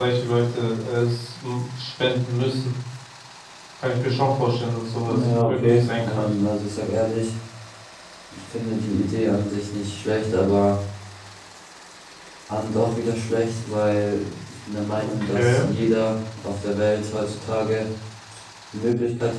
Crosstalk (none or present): present